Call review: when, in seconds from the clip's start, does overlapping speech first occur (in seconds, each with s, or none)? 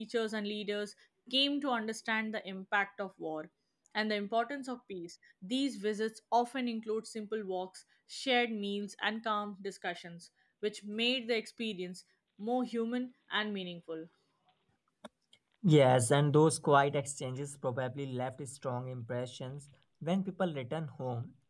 none